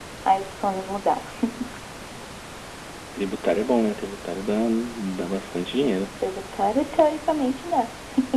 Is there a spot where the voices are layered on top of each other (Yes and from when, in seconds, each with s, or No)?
No